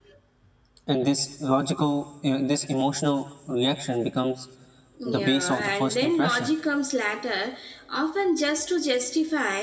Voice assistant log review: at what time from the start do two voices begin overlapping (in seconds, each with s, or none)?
5.0 s